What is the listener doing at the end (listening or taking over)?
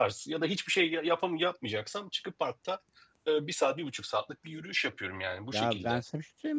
taking over